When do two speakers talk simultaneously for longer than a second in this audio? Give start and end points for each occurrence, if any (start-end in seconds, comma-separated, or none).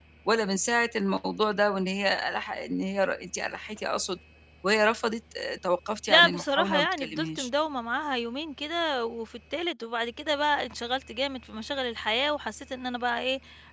6.1-7.5